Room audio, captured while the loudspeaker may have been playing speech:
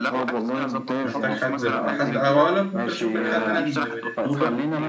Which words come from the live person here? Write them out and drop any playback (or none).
محتاج حد مع حد او اقول لك ممكن اشوف لك حد انا من من النوبه